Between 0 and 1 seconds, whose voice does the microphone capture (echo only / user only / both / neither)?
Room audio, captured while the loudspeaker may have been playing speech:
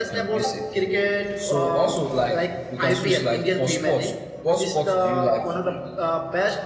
echo only